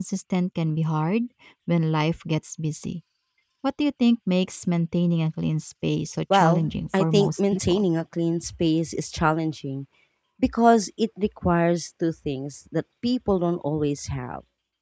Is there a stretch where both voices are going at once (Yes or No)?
Yes